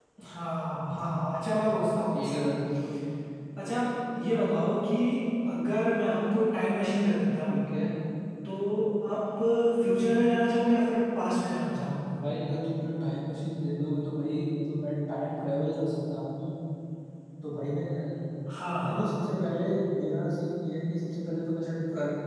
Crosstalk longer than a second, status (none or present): none